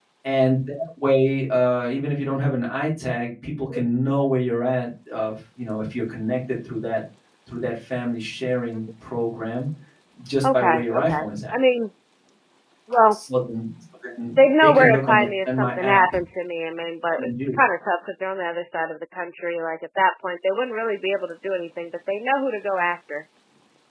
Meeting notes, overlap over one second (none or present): present